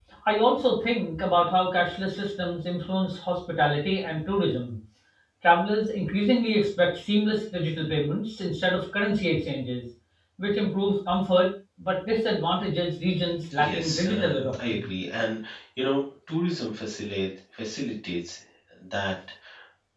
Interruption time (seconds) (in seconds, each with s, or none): 13.5 s